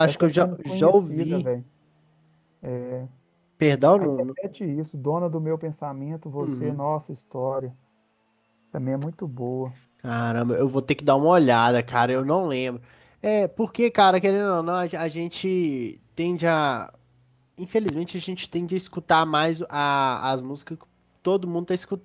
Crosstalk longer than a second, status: present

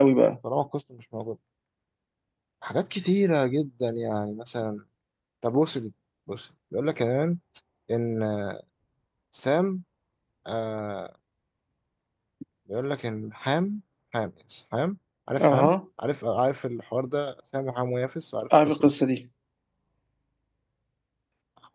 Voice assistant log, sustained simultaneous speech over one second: none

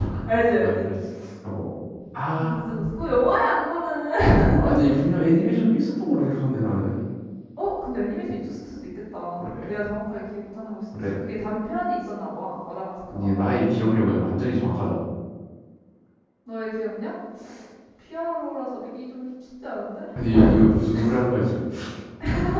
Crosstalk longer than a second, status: none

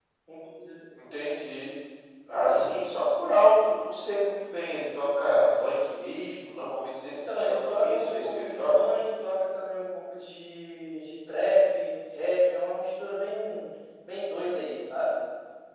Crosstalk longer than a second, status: present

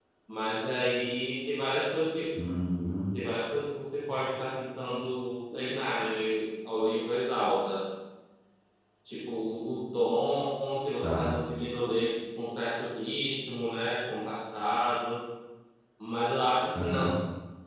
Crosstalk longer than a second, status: none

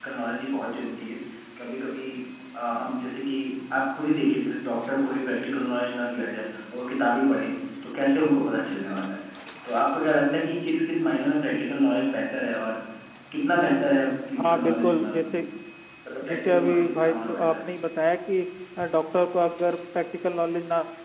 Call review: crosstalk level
present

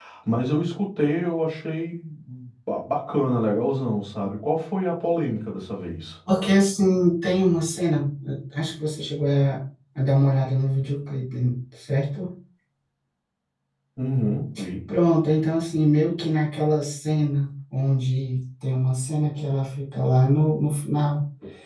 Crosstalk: none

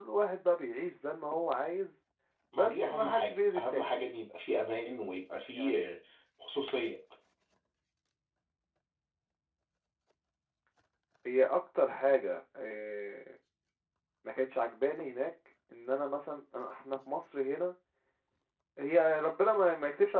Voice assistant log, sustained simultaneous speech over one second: present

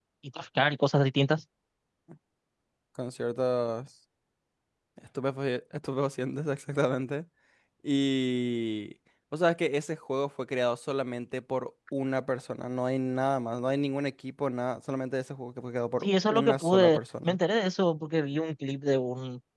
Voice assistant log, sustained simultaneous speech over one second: present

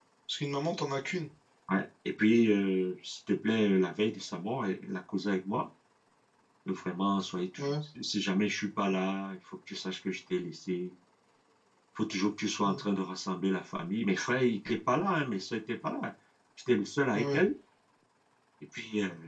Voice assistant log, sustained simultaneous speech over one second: none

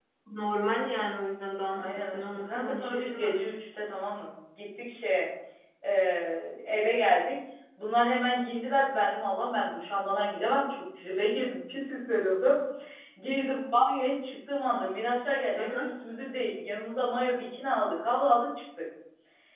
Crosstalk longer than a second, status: present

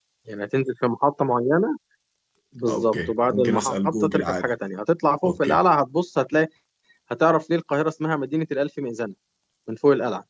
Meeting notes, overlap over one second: present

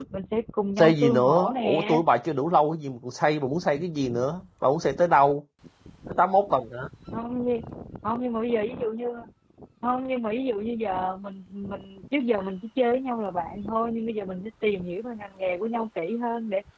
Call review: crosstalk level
present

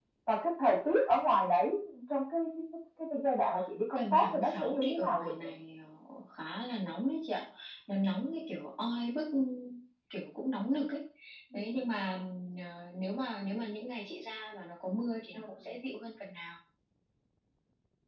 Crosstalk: present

